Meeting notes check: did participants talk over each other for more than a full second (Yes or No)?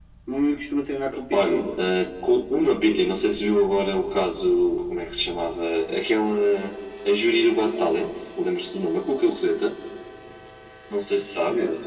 No